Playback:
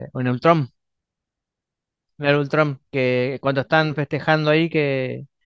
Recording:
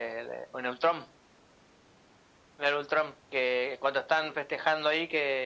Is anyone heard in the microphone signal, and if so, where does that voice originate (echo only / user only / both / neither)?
echo only